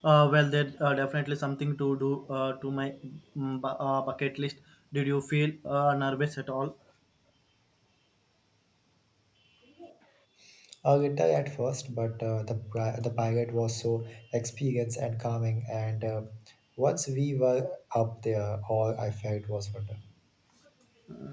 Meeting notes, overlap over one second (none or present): none